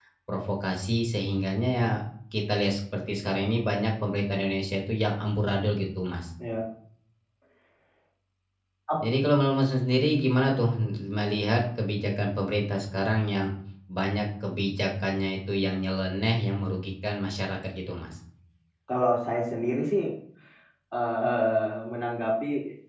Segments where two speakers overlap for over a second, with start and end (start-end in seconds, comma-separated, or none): none